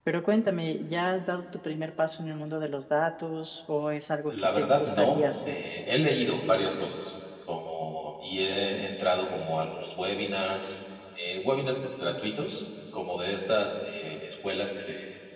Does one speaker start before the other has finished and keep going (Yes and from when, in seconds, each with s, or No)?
Yes, from 4.3 s